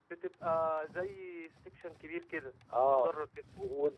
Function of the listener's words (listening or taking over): taking over